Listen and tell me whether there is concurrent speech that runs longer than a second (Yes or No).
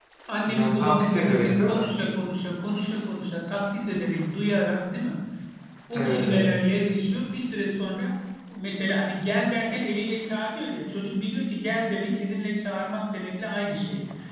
Yes